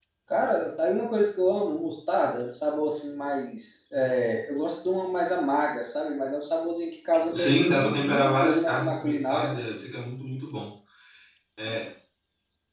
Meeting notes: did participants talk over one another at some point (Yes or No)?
Yes